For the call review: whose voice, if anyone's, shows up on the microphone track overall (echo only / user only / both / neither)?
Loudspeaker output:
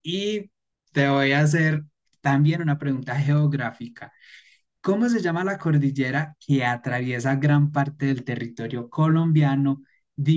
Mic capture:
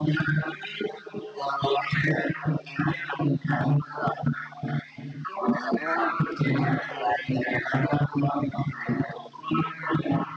both